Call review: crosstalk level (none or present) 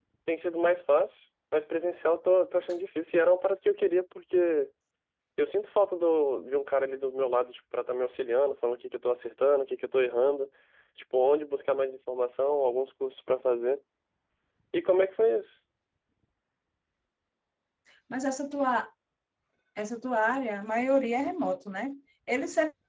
none